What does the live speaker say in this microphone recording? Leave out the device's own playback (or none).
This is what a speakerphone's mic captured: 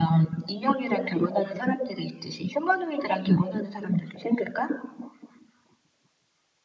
none